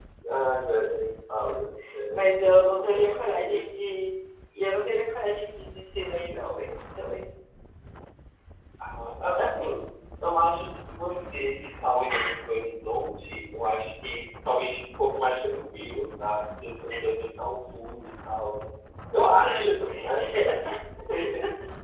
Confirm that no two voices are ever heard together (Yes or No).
No